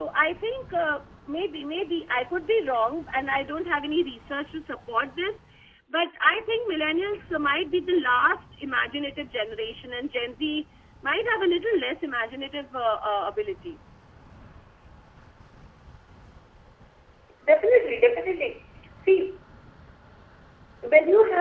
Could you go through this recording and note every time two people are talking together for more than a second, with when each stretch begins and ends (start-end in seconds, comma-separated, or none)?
none